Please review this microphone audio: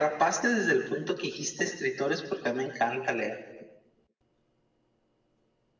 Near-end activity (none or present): none